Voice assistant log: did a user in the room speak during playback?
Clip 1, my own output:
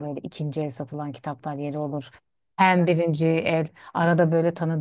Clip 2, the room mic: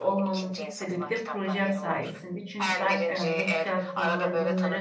Yes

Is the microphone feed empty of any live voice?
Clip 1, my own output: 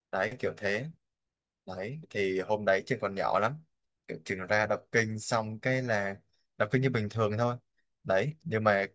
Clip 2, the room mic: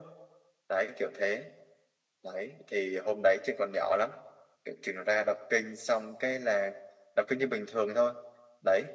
Yes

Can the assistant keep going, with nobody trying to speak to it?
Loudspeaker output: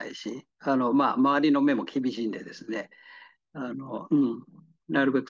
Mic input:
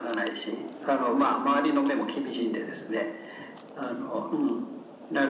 Yes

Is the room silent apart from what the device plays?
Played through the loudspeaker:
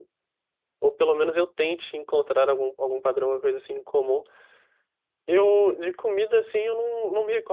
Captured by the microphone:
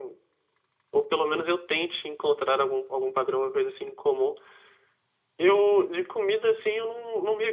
Yes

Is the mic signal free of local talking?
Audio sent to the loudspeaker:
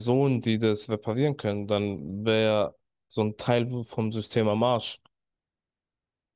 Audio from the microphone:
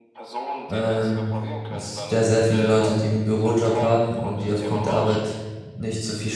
No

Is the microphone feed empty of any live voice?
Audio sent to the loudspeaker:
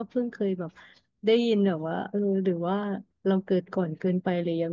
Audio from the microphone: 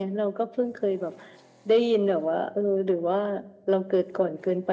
Yes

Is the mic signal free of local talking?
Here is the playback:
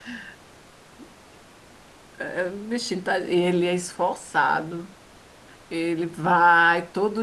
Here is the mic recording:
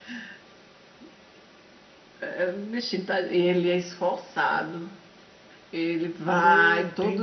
No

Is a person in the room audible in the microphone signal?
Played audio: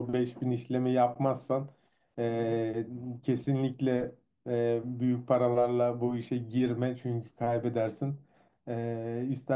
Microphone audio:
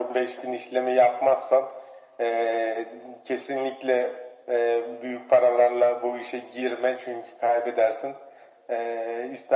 No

